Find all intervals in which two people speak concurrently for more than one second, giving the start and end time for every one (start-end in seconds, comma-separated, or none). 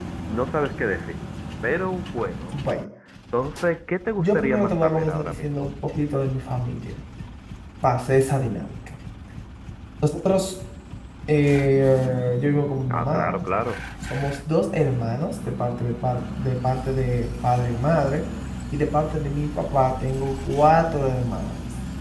4.2-5.7